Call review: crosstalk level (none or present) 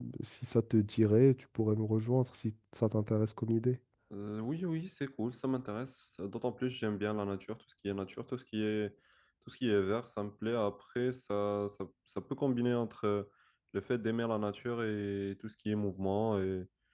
none